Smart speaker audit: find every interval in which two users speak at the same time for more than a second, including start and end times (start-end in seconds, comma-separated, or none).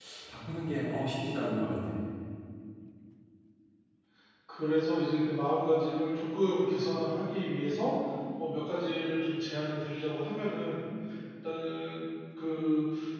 none